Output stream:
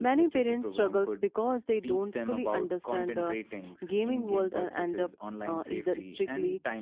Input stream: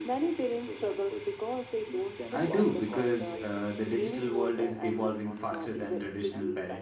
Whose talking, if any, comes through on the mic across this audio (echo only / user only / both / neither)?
both